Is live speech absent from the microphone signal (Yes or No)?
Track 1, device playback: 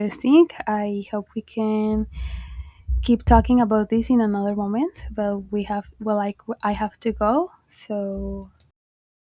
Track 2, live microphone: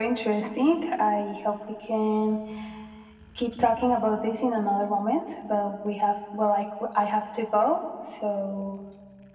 Yes